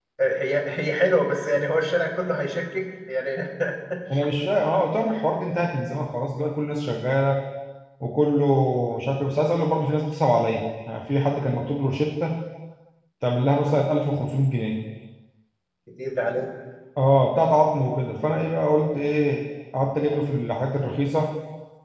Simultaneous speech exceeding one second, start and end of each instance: none

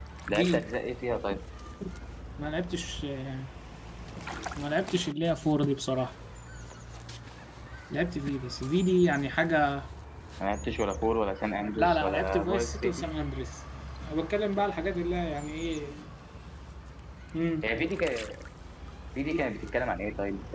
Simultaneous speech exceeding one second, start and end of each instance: 11.8-13.0

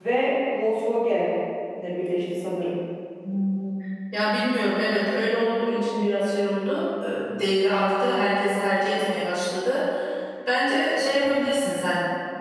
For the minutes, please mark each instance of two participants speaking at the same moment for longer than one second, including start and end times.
none

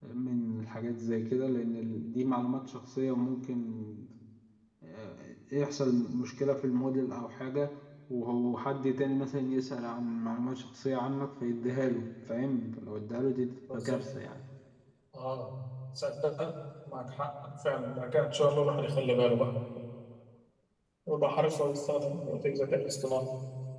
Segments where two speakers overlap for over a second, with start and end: none

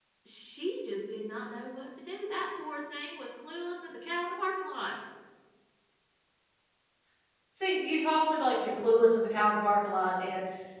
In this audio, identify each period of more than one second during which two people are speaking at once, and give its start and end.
none

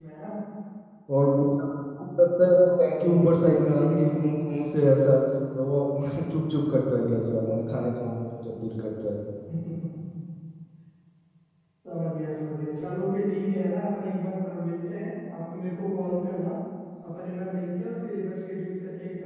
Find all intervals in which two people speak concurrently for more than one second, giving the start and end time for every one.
2.5-4.0

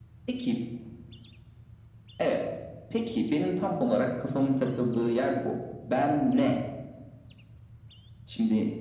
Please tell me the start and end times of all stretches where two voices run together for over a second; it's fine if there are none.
none

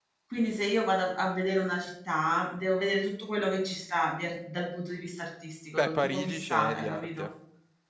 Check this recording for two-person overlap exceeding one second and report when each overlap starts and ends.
5.8-7.3

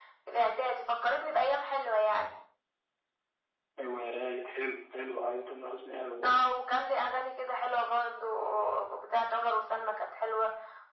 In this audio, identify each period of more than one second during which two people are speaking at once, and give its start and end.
none

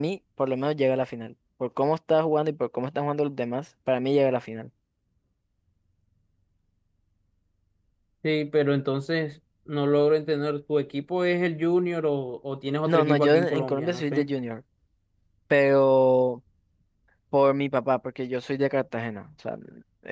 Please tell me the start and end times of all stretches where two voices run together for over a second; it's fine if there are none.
12.9-14.3

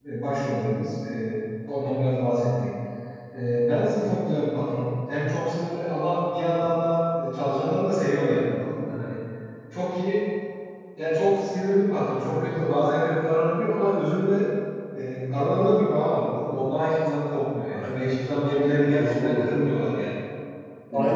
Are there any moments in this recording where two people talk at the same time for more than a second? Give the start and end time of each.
17.7-19.5

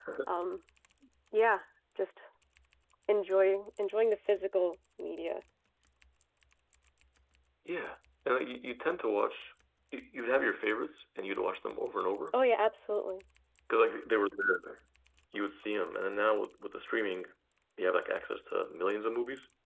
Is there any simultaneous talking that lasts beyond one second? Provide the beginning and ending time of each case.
none

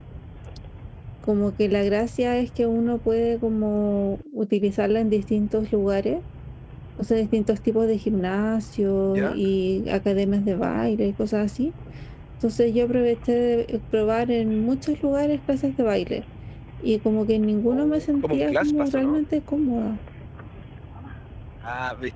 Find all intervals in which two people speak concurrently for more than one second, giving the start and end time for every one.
17.7-19.2

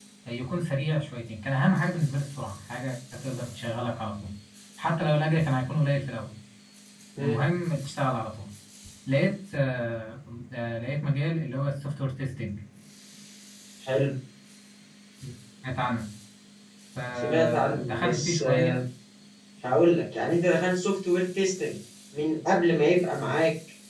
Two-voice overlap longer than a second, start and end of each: 17.2-18.7

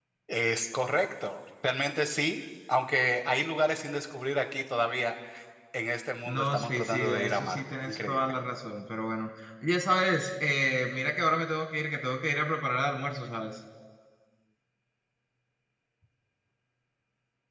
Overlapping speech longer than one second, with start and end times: 6.3-8.3

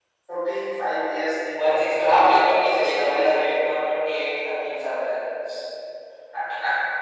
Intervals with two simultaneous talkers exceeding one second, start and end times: 1.6-3.5

